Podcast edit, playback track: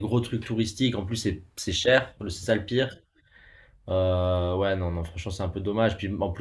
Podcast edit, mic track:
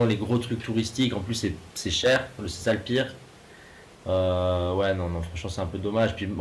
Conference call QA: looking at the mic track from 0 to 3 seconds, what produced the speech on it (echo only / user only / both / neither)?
echo only